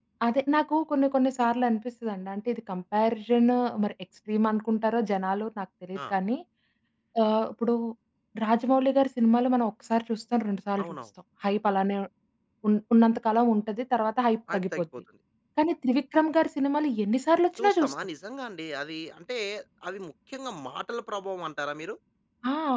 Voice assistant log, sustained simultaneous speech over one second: none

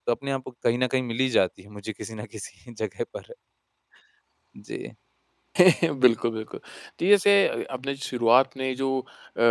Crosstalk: none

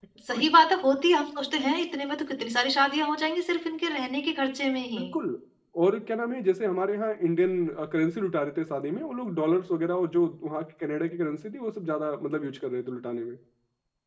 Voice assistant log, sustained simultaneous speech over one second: none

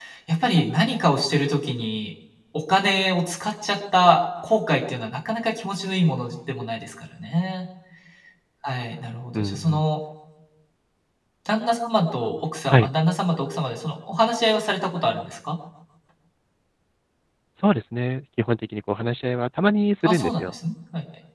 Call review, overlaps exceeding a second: none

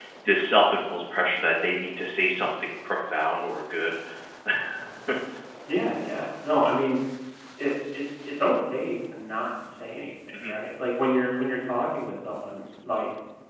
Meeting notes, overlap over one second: none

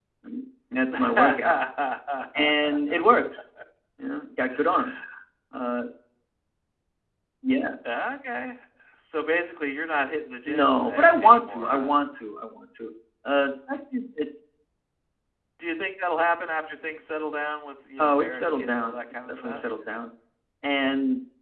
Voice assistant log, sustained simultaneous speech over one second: present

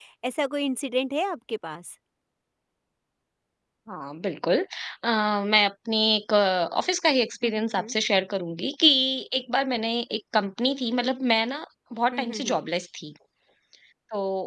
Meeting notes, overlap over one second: none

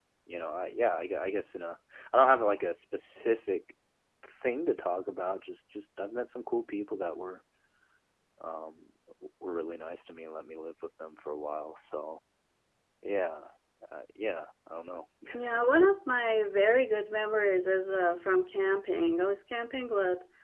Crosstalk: none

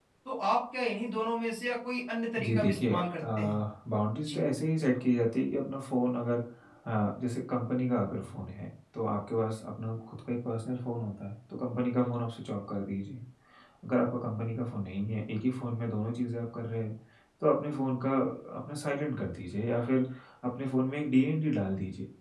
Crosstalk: present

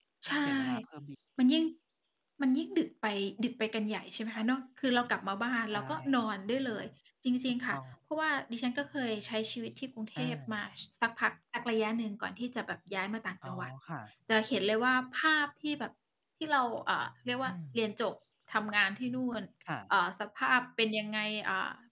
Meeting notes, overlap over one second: none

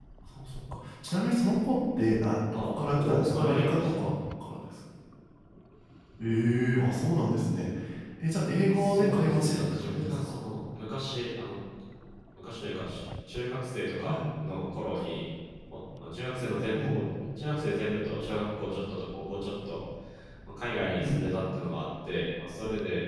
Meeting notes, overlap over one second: present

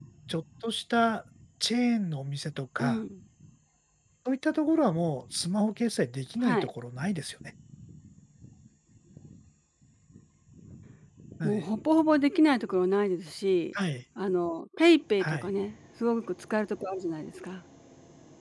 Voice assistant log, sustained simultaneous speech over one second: none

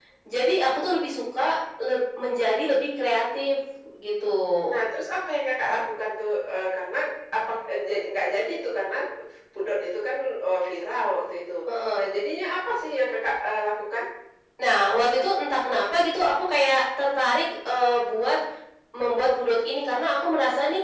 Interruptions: none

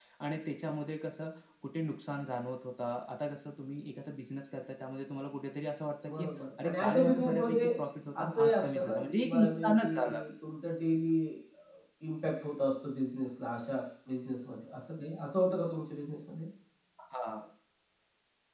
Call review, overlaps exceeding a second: present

